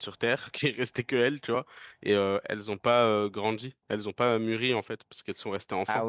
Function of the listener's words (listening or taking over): taking over